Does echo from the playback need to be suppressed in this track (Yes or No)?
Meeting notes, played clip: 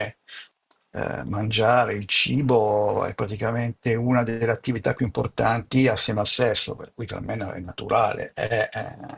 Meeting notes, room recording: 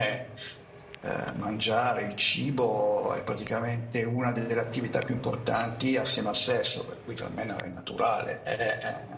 Yes